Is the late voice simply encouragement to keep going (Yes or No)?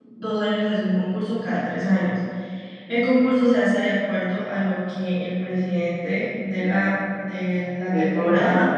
Yes